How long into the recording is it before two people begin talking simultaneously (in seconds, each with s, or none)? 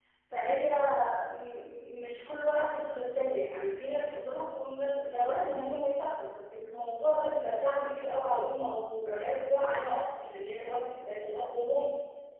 none